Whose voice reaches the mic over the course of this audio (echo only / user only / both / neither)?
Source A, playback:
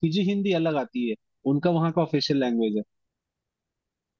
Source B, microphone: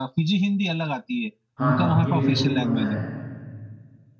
both